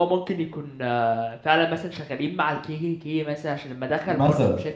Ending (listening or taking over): listening